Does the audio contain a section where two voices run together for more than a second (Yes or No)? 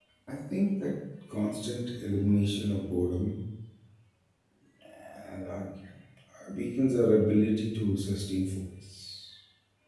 No